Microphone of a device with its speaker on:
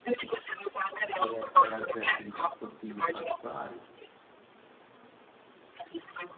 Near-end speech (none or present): present